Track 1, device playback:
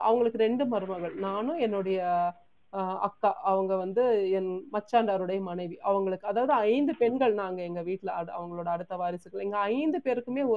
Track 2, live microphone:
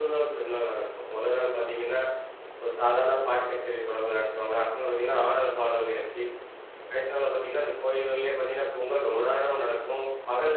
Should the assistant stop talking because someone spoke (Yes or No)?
Yes